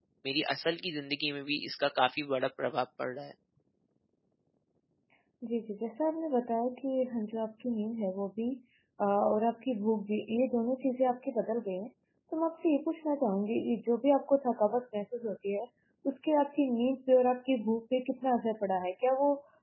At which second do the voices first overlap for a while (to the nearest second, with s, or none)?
none